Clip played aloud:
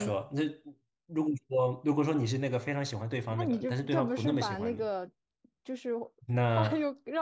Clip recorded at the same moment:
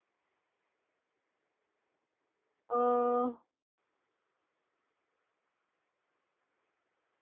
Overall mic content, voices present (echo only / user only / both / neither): user only